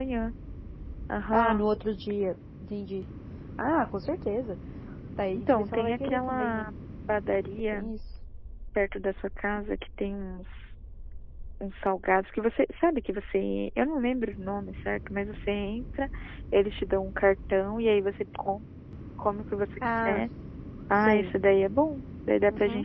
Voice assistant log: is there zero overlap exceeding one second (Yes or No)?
No